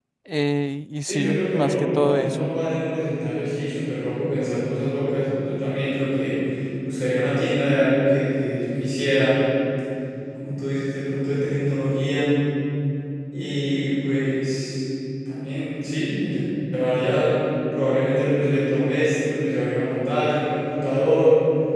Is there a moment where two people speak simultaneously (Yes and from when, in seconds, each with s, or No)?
Yes, from 1.0 s